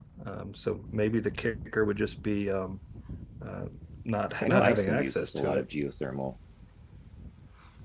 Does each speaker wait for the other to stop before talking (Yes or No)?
No